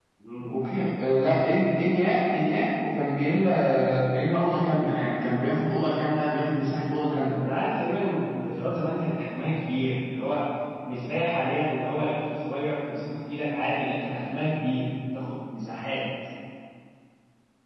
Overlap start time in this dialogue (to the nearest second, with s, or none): none